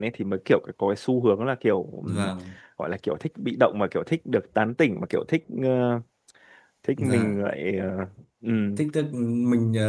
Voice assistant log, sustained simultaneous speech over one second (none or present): none